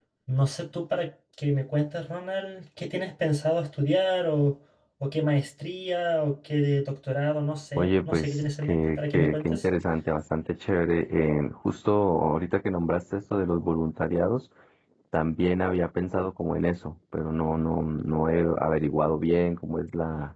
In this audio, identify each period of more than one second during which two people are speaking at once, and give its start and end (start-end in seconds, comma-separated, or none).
7.8-9.7